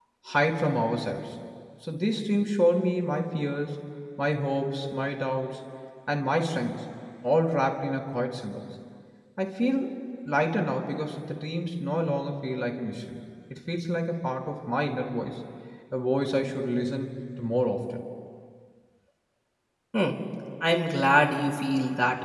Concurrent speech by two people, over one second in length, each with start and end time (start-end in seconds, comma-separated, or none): none